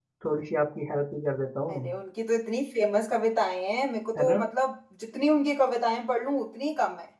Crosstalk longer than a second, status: none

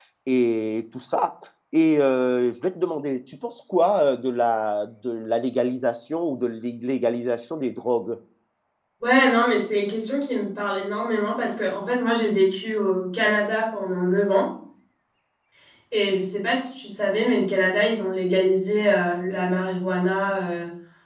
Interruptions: none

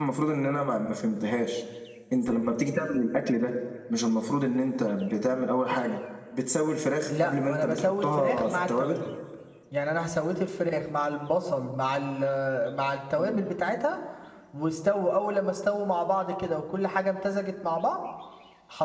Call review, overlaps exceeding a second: present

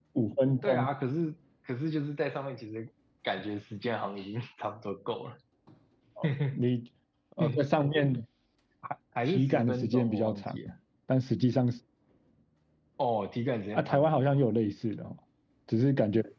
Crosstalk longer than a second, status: present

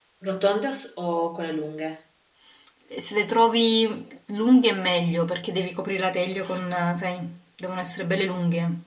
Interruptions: none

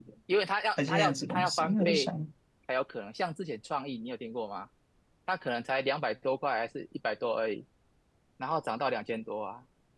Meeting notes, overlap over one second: present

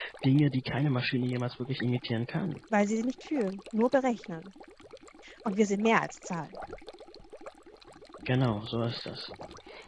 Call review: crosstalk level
none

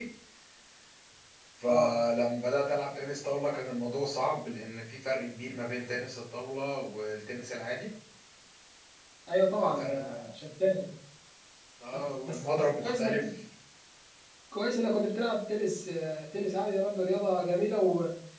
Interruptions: present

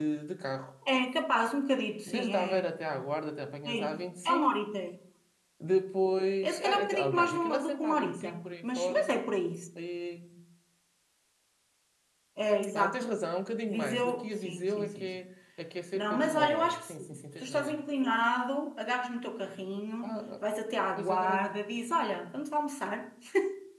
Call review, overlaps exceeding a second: present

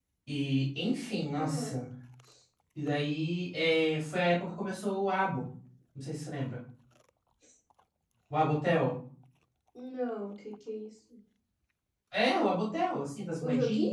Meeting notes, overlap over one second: none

